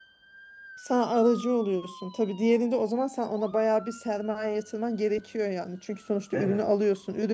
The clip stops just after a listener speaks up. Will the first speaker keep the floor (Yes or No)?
Yes